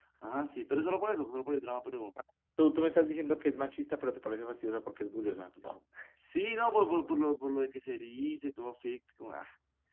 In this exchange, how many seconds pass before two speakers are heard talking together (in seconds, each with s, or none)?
none